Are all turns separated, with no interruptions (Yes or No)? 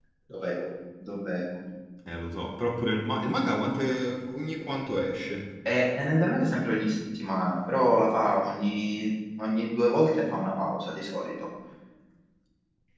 Yes